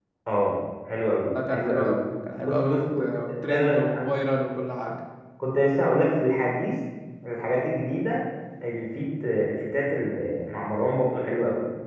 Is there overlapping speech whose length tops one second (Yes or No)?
Yes